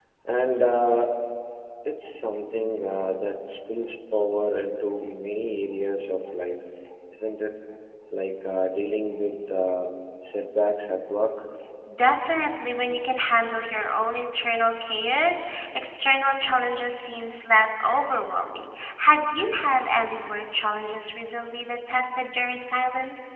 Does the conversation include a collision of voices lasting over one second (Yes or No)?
No